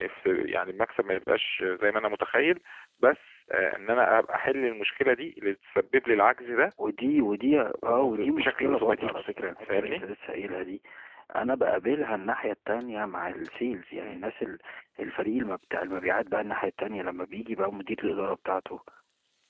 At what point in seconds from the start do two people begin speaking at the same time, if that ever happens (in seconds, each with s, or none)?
7.9 s